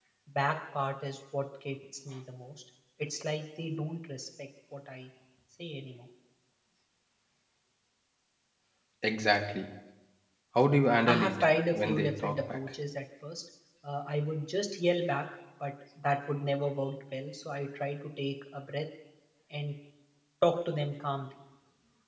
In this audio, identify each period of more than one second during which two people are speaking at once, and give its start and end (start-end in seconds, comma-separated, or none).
11.1-12.6